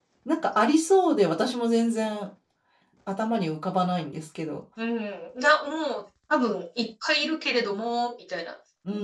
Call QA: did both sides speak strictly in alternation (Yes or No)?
Yes